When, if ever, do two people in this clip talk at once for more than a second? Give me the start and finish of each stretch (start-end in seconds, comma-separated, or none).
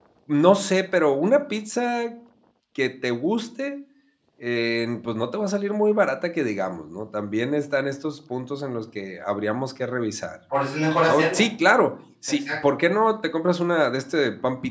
none